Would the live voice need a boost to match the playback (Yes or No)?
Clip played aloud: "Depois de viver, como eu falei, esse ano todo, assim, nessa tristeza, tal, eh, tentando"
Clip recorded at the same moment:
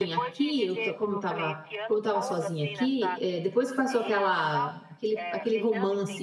No